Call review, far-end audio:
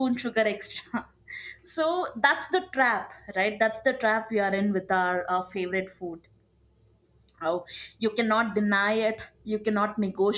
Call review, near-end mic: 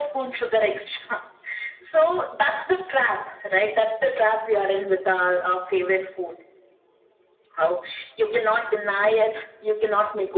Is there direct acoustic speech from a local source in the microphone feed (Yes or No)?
No